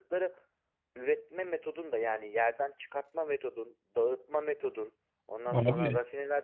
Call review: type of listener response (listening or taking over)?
listening